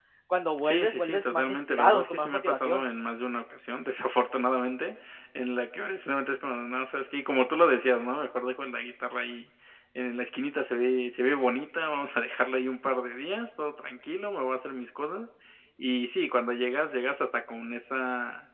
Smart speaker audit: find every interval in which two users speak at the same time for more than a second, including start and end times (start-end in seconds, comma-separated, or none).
0.6-2.8